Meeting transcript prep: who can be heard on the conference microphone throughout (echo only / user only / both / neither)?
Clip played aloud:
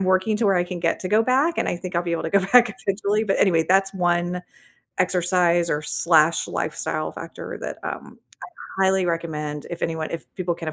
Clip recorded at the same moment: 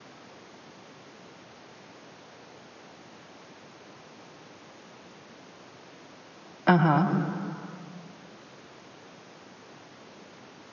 user only